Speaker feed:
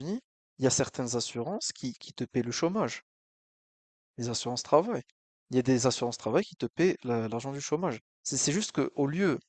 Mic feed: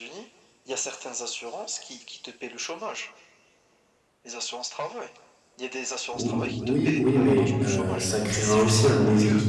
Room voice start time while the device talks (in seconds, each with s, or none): 6.1 s